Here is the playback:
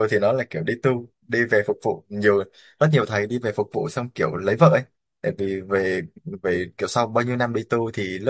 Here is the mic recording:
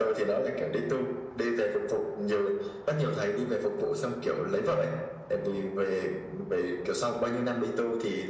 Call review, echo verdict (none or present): present